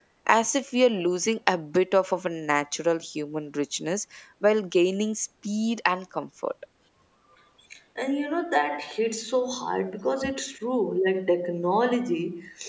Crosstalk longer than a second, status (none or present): none